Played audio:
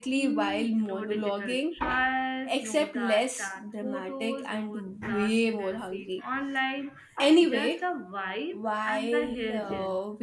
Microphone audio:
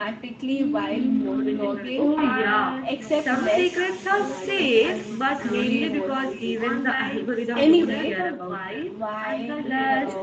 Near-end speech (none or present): present